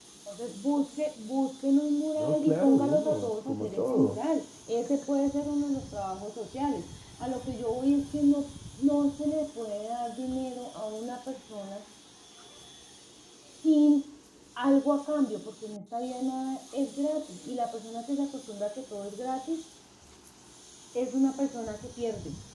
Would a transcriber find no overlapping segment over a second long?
No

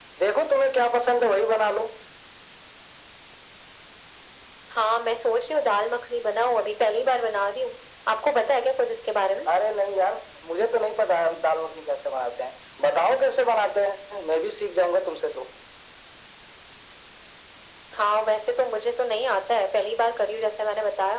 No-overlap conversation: Yes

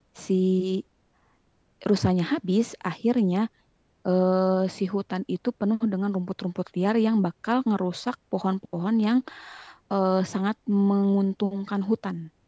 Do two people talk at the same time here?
No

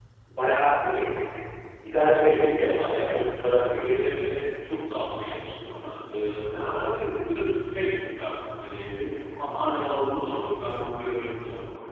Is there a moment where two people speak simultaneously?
Yes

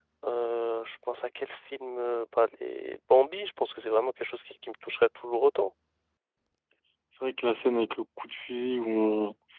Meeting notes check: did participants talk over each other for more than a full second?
No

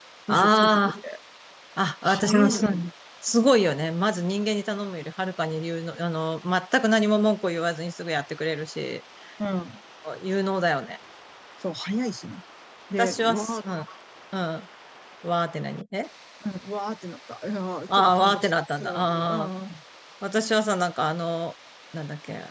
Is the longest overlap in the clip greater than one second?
Yes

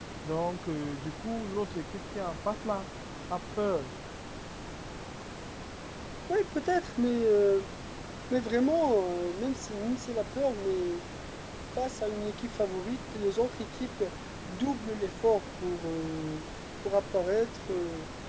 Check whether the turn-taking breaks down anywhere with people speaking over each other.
No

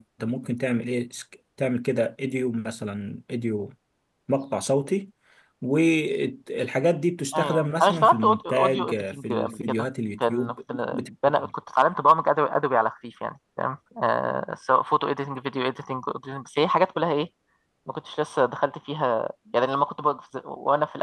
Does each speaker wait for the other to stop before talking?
No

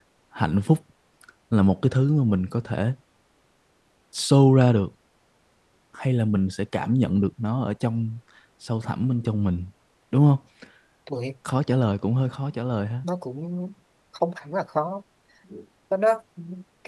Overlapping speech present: No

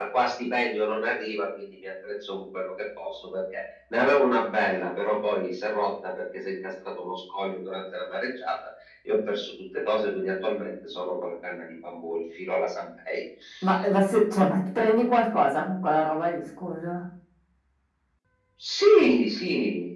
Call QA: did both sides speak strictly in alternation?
Yes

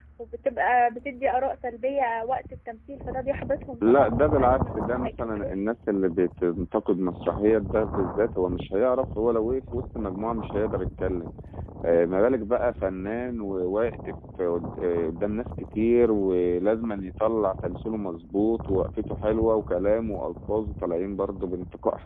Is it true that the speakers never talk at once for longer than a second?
No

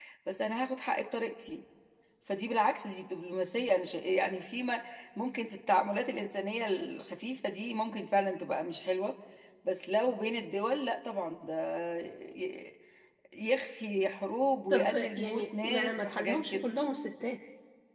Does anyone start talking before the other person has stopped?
Yes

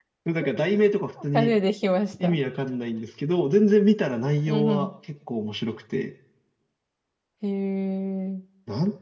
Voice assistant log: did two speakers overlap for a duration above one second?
No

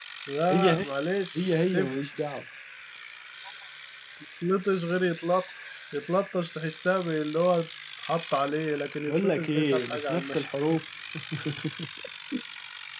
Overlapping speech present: Yes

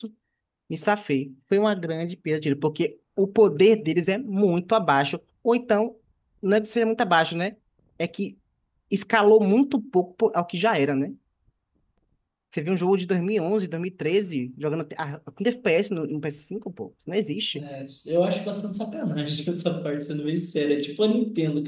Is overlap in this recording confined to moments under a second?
Yes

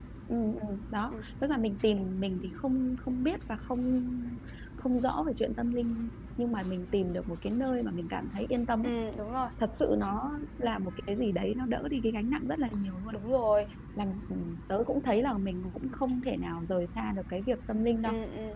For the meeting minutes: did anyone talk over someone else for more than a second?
No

